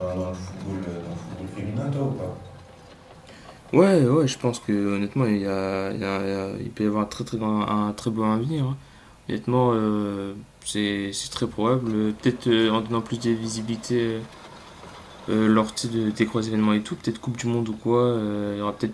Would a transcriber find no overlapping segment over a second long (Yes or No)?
Yes